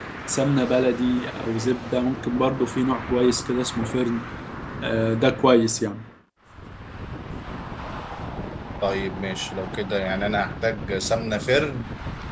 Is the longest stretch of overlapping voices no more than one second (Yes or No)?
Yes